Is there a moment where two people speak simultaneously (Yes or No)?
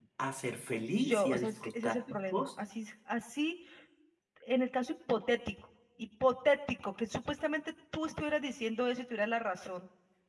Yes